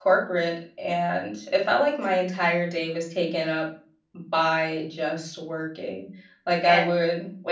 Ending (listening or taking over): listening